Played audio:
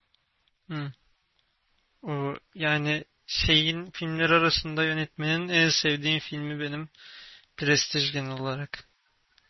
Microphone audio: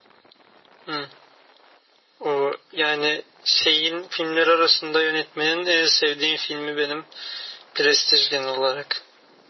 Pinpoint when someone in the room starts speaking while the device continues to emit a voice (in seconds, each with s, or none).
none